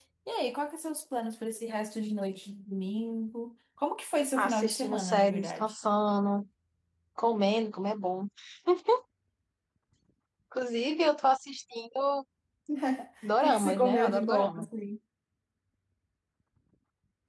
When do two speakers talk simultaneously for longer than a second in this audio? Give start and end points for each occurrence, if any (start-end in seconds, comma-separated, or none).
4.4-5.7, 13.4-14.7